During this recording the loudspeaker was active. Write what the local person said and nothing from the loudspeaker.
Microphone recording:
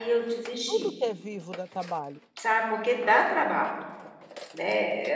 Tudo que é vivo dá trabalho.

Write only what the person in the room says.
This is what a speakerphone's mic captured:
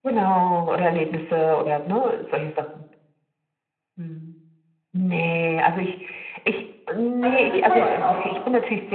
alles zu teuer kauft.

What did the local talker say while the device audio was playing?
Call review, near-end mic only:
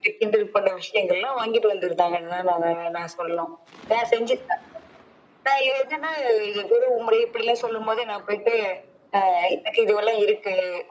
none

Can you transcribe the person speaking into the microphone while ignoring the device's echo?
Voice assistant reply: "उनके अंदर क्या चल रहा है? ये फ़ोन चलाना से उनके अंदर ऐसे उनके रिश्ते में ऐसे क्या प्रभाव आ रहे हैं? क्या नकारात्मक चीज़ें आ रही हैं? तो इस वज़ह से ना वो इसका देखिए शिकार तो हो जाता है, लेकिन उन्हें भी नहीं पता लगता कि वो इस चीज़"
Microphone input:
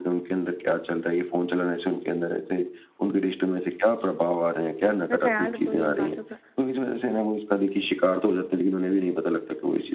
मैं ख़्याल रखूँगी इन बातों का।

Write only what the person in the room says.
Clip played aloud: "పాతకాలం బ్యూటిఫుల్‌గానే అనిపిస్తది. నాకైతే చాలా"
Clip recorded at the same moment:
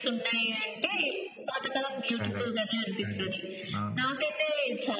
కరెక్ట్. కరెక్ట్. అవును.

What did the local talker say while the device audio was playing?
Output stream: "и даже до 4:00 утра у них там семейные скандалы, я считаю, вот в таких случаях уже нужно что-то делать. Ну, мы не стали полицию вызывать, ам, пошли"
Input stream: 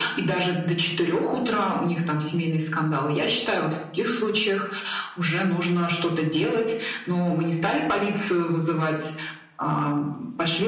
none

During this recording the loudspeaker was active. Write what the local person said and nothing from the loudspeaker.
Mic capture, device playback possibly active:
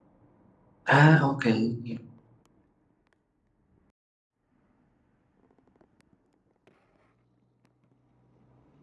Ah, okey.

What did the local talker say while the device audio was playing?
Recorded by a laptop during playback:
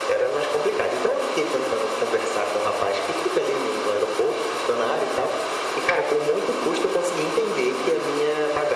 none

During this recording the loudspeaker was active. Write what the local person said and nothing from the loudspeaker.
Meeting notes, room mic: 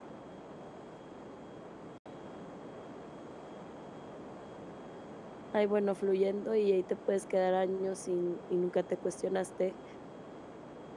ay bueno, fluyendo y ahí te puedes quedar años sin y nunca te cuestionaste.

